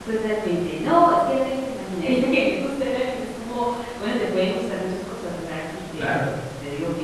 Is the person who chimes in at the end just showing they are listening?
Yes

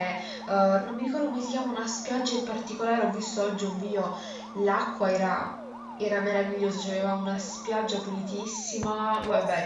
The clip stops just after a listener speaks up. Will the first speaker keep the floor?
Yes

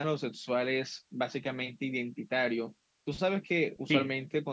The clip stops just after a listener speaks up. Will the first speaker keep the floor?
Yes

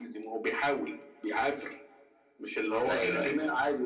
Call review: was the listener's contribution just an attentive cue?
Yes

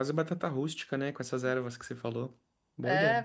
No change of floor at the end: No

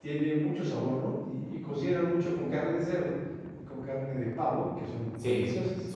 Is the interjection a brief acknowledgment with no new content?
No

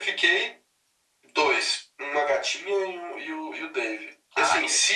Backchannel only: Yes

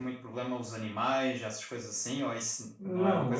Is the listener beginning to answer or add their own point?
Yes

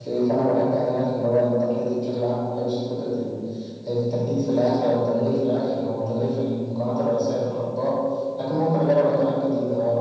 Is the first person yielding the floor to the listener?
No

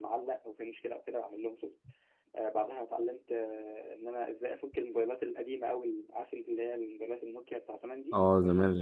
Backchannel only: No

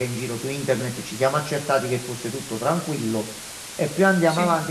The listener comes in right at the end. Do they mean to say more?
No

